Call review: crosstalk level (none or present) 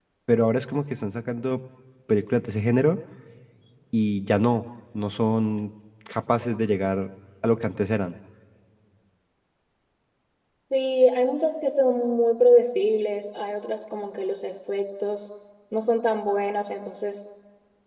none